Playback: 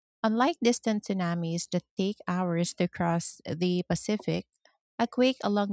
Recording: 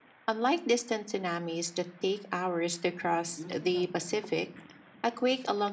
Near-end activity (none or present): present